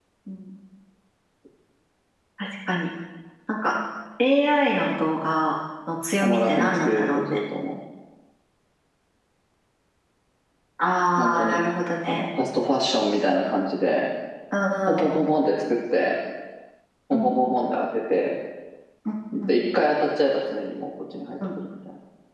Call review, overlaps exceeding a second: present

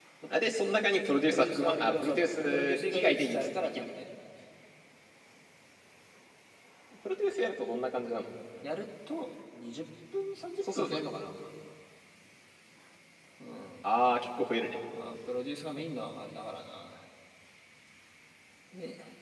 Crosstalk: present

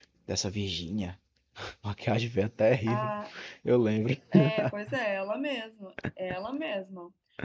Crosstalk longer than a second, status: none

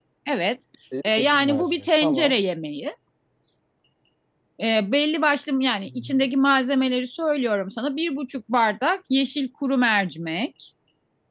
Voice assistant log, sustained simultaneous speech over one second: present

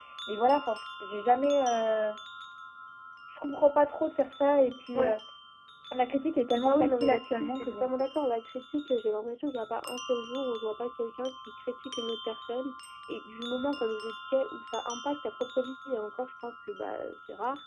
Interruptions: present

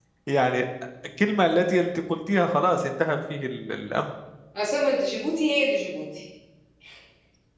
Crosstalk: none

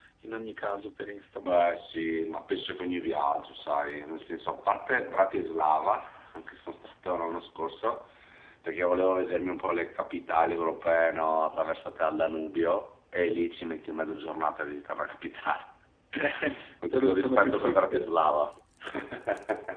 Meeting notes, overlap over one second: present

